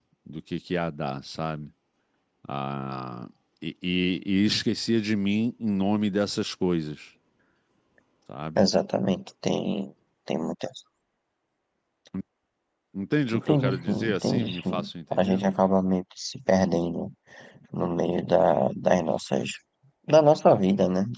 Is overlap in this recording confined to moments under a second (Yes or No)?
No